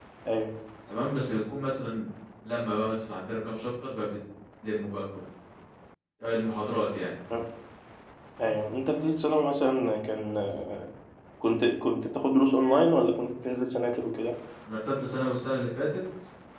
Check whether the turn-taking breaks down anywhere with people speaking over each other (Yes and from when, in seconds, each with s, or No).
No